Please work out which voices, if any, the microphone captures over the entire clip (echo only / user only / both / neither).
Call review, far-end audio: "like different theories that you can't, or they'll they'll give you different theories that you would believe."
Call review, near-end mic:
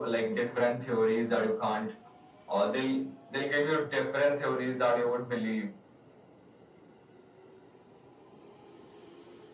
echo only